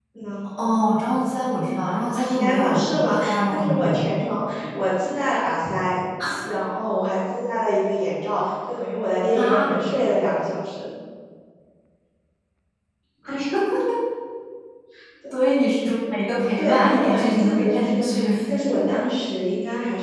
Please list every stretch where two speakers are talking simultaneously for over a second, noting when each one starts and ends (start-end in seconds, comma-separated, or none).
2.2-4.0, 16.6-18.1